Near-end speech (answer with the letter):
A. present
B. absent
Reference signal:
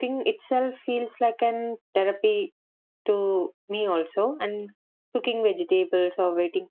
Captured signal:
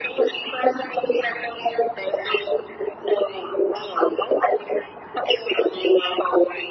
B